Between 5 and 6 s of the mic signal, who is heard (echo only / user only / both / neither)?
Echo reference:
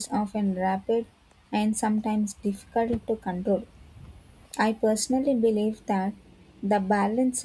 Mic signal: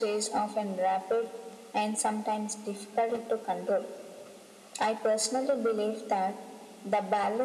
echo only